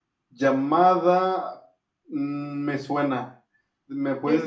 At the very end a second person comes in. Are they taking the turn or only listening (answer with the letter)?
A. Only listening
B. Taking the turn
B